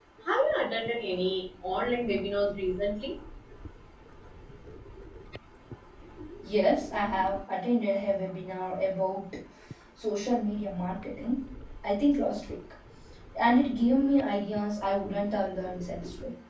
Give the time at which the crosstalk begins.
none

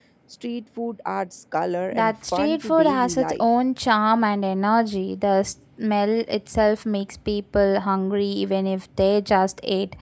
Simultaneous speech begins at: 1.9 s

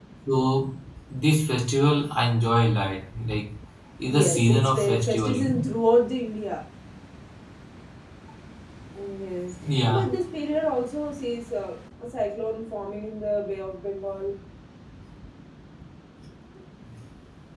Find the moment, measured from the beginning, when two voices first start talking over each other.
4.1 s

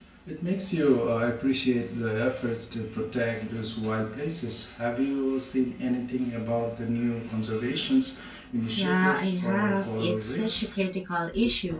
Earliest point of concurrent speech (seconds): 8.8 s

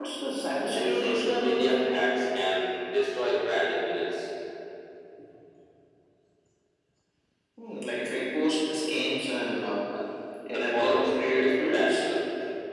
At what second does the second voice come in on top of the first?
0.7 s

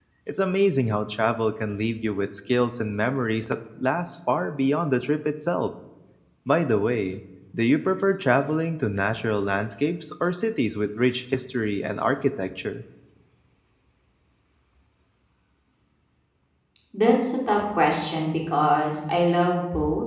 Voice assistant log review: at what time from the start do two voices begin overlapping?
none

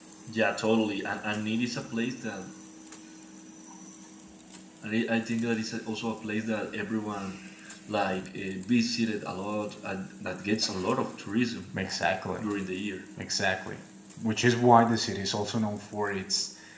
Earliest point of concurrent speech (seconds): none

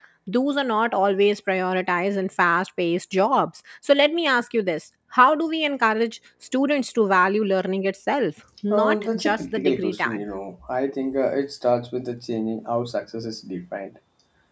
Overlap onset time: 8.7 s

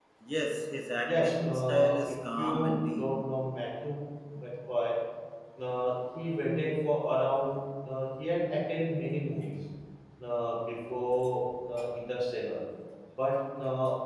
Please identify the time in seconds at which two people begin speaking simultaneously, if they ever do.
1.0 s

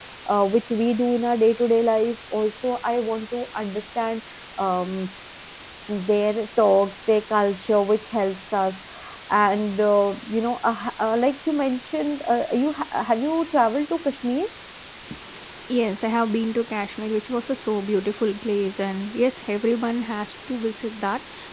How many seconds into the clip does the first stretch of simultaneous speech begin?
none

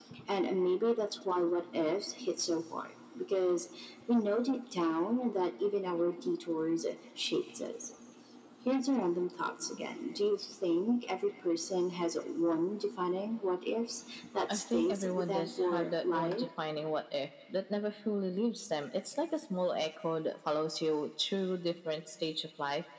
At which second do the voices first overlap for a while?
14.5 s

